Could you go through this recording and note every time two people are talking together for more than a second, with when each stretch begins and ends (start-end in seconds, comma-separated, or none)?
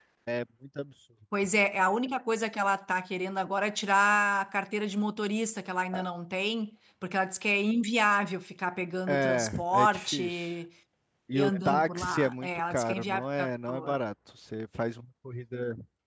9.1-10.5, 11.3-14.0